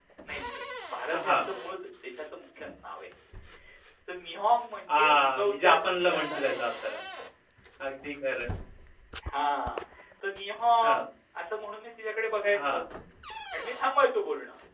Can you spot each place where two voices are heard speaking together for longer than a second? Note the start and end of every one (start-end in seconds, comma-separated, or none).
4.9-6.7